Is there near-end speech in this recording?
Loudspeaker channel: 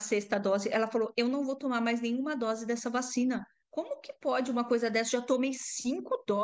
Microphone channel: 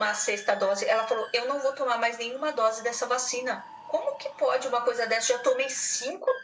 No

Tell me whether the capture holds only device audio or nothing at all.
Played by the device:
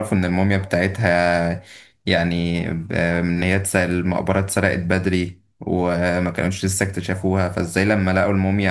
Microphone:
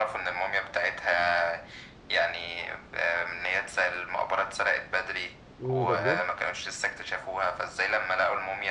No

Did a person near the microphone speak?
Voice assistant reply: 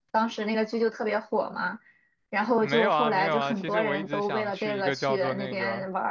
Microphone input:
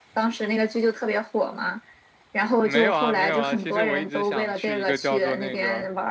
No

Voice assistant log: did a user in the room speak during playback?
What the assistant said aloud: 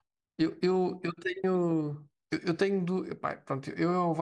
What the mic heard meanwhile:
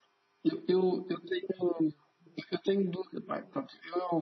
No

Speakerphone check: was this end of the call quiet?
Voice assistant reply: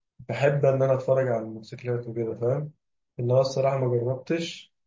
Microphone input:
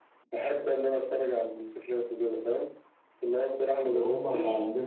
No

